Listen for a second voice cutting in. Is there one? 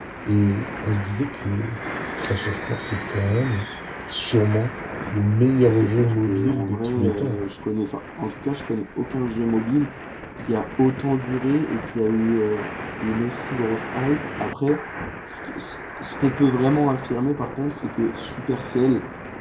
Yes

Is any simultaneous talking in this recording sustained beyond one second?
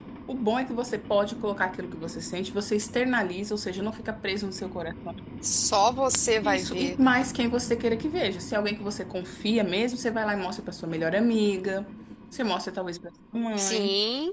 No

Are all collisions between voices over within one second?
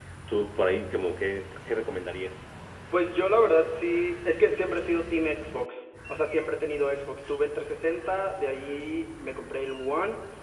Yes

